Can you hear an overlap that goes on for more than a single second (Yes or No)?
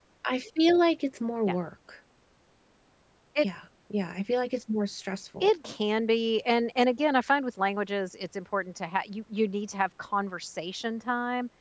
No